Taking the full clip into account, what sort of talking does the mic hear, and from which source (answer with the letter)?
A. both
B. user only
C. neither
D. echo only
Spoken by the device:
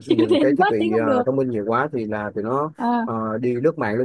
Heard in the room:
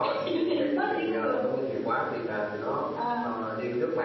D